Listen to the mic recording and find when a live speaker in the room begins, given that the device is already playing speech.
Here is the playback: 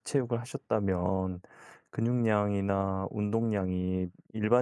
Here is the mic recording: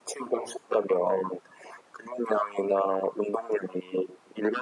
none

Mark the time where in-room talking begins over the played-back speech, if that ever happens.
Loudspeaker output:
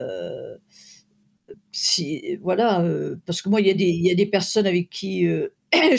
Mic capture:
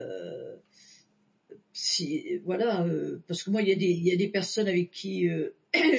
none

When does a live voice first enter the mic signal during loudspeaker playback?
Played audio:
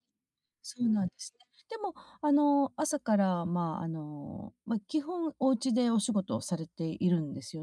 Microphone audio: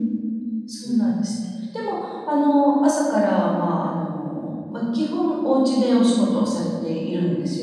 none

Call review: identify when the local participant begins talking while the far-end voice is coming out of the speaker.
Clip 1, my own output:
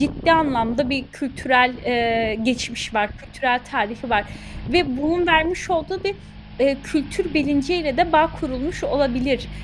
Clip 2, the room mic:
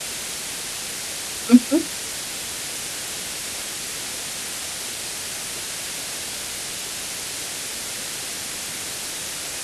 1.4 s

